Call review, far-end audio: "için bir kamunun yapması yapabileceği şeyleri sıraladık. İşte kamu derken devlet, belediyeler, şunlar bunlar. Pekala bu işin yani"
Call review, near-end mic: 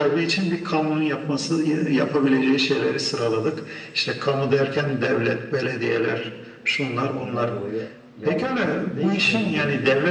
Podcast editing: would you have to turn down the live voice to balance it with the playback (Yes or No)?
No